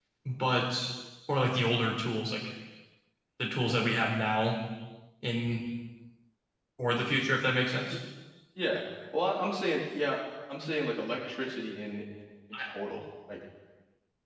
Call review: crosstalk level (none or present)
none